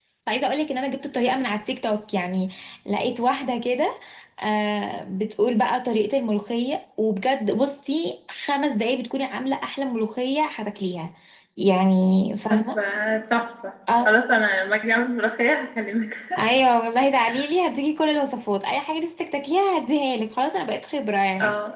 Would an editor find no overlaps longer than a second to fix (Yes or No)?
Yes